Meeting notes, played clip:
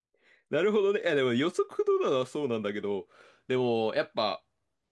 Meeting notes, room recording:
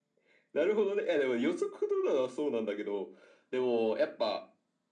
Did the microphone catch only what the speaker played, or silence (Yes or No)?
Yes